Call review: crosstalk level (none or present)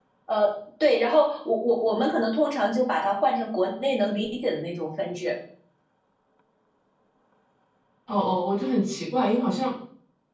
none